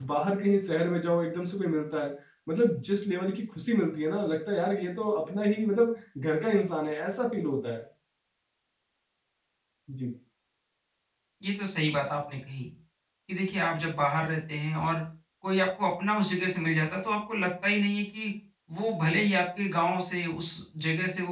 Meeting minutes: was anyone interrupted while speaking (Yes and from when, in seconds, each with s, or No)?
No